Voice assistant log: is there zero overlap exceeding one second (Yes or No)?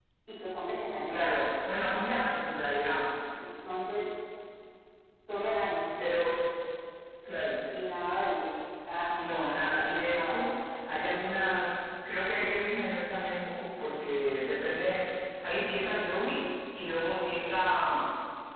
No